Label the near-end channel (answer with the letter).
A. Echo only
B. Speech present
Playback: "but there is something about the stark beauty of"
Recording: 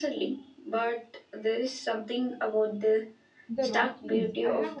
B